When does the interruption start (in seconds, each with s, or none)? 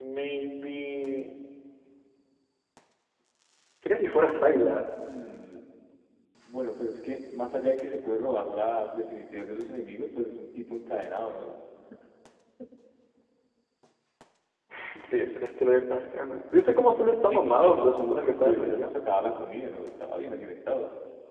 17.3 s